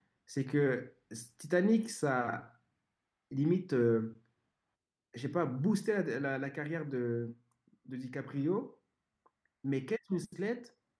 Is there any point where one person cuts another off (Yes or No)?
No